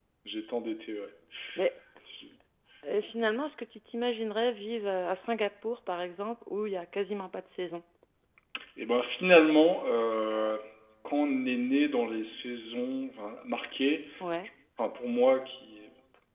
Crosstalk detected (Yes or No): No